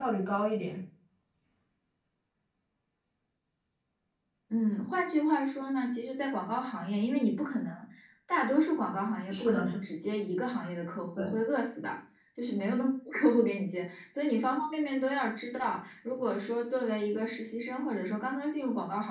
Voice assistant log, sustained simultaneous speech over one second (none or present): none